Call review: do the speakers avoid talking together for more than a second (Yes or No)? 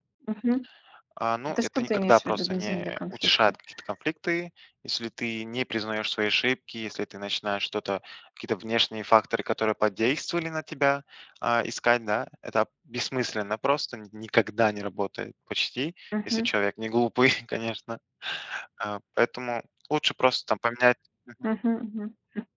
No